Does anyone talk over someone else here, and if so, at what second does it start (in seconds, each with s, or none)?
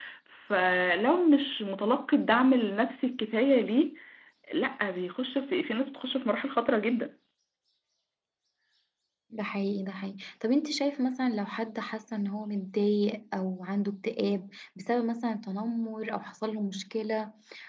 none